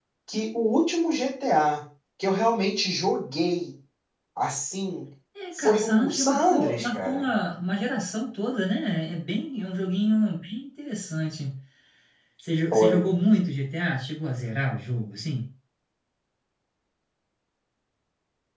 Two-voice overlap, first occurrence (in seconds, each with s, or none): 5.6 s